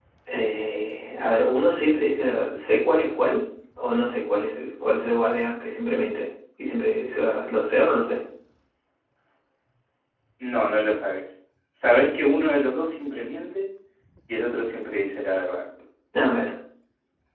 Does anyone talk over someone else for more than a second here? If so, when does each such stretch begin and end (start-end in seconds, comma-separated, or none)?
none